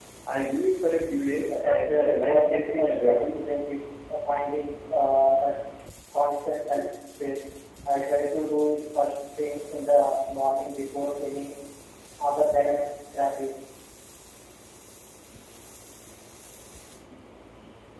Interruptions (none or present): present